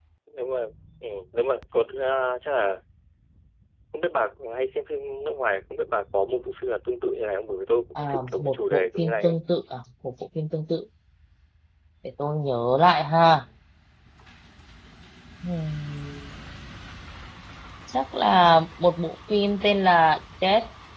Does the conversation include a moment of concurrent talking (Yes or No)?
Yes